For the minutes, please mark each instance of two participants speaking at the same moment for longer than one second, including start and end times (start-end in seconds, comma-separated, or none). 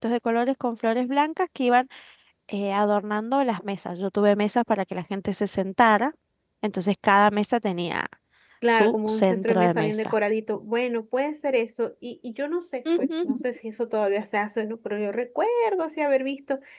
8.7-10.1